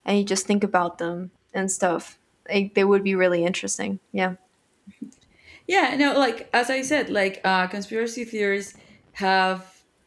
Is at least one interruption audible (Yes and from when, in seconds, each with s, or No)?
No